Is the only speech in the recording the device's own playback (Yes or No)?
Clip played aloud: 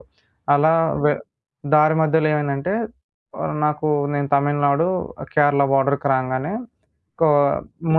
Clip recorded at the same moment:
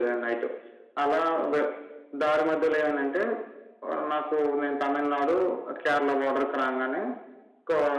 Yes